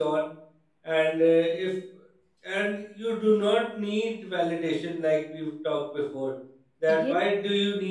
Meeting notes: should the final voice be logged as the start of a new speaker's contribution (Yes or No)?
No